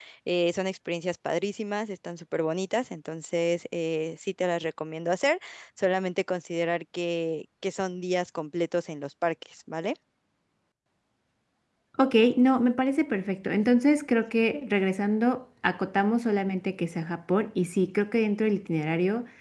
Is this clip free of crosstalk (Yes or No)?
Yes